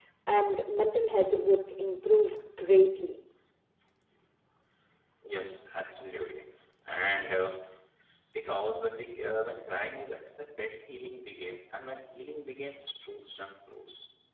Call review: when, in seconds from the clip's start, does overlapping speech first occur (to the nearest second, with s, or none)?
none